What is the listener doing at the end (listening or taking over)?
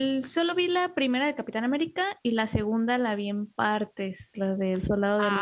taking over